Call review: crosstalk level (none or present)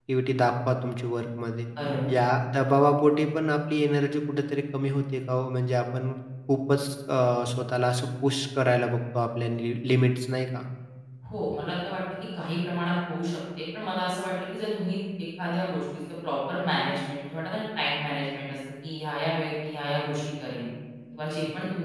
none